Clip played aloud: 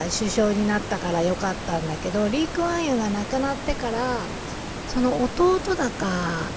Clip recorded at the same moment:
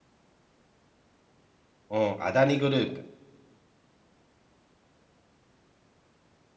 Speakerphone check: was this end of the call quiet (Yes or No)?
No